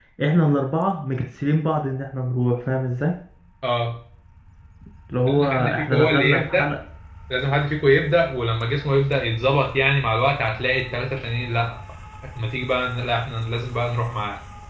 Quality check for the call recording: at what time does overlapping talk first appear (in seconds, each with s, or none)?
5.3 s